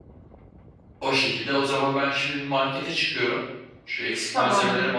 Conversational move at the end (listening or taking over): listening